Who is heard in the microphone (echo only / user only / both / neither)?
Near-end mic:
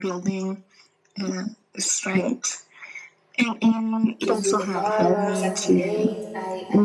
both